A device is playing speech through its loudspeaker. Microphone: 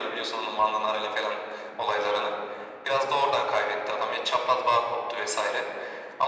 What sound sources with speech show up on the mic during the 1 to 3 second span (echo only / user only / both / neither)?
echo only